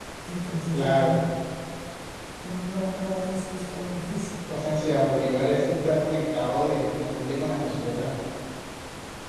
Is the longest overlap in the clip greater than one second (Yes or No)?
No